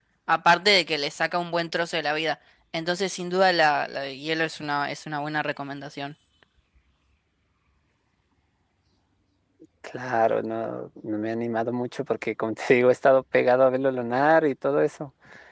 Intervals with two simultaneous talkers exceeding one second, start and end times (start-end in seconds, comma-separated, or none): none